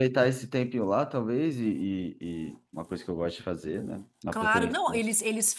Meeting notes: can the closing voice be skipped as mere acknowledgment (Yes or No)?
No